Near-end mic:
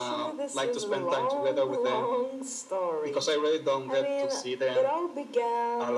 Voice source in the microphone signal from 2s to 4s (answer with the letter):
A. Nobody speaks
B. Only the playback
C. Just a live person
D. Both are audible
B